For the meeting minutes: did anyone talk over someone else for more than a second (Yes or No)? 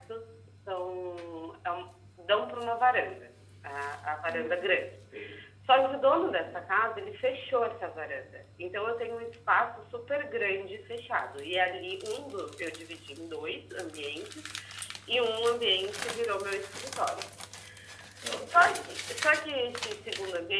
No